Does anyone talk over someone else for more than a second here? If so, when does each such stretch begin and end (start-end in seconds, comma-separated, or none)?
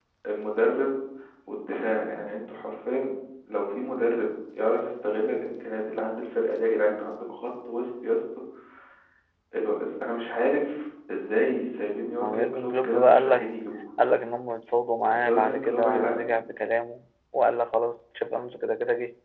12.2-13.5, 15.1-16.3